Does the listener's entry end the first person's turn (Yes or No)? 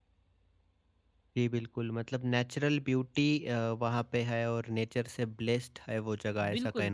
Yes